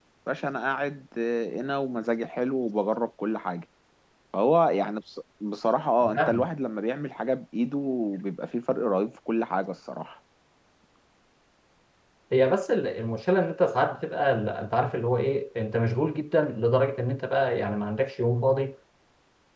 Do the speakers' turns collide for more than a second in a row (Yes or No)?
No